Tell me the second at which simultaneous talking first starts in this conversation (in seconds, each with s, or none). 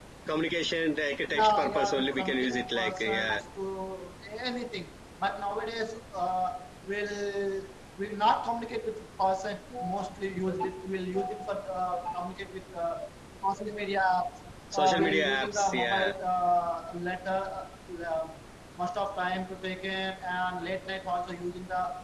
1.4 s